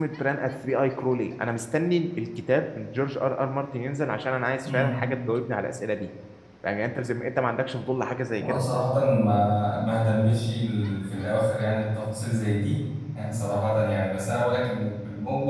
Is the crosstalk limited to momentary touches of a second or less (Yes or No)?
Yes